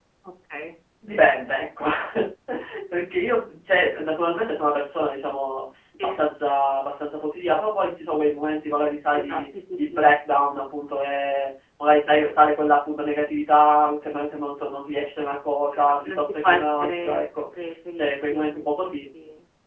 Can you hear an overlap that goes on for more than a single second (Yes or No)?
Yes